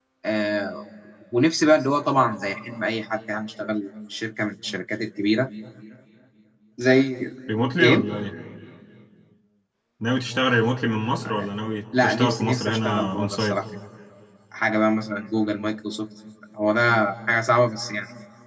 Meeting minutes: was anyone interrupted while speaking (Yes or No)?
Yes